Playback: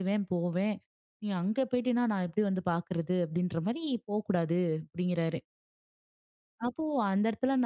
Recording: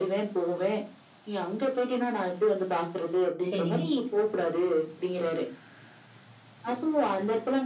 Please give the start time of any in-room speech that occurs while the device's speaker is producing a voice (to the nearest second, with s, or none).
3 s